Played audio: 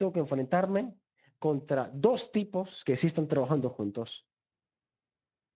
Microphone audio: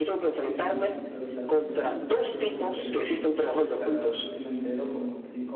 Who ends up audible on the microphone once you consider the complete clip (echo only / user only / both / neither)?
both